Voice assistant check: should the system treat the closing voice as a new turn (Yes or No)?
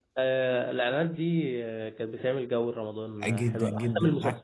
Yes